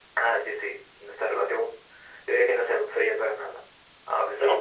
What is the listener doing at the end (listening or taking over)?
listening